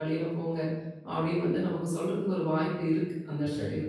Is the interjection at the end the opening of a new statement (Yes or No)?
Yes